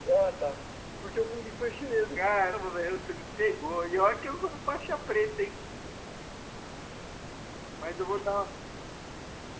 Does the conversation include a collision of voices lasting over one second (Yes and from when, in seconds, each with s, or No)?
No